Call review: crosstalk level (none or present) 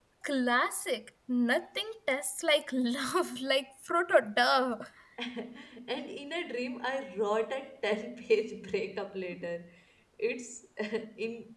none